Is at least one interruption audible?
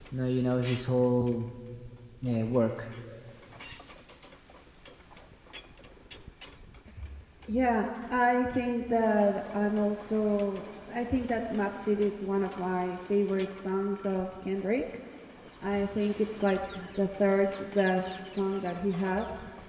No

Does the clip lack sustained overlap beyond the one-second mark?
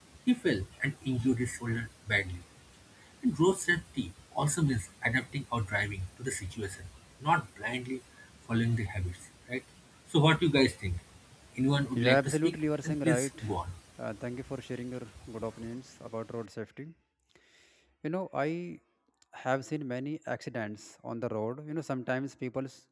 No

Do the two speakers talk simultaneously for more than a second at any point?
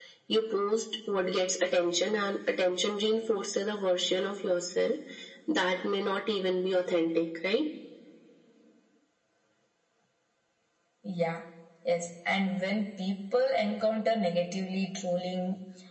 No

